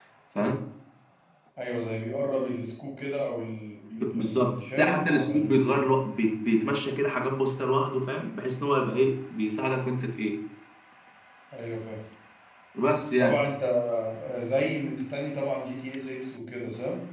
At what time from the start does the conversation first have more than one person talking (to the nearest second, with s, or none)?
4 s